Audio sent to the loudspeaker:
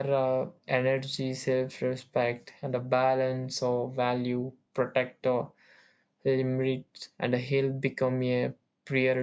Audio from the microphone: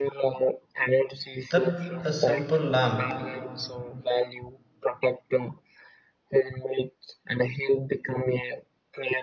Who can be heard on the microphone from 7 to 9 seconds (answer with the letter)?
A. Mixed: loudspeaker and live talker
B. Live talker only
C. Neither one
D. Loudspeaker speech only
D